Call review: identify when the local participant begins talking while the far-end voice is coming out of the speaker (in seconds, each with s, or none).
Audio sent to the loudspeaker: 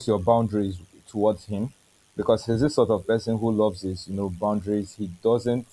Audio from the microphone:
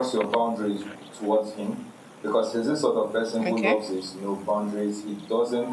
3.5 s